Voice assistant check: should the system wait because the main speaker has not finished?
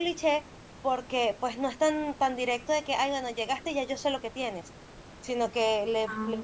Yes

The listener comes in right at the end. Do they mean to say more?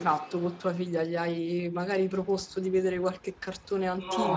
Yes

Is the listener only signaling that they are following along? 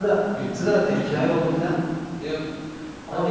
Yes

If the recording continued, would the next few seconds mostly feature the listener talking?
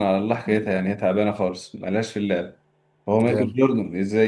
No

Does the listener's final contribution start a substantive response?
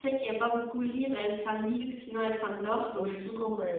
Yes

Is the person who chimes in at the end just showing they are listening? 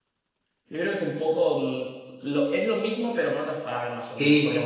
No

